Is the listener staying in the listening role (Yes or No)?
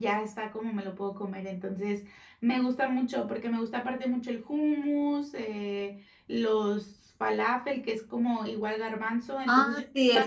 No